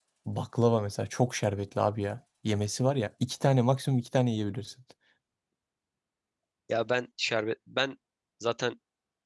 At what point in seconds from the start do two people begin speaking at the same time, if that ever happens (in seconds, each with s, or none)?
none